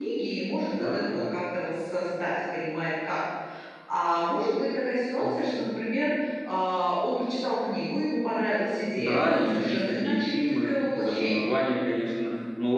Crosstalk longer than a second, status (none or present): present